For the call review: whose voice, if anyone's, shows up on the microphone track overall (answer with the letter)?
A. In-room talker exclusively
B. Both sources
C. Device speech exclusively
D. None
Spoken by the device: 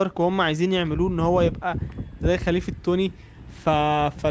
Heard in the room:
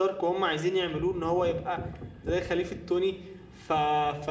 C